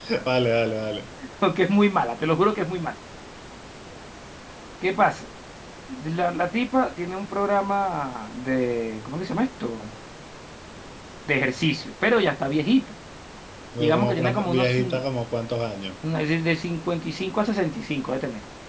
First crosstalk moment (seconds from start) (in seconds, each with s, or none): 13.8 s